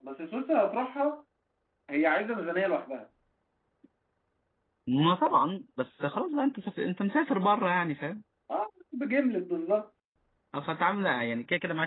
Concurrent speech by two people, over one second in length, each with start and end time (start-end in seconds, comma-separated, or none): none